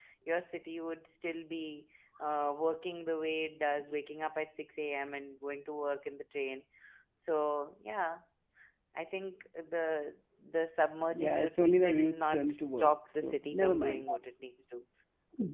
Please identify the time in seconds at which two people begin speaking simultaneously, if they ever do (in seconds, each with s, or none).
11.1 s